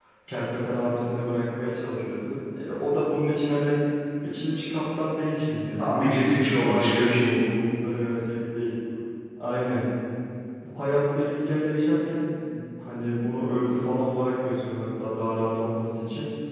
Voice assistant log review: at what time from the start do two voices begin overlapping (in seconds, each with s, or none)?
5.8 s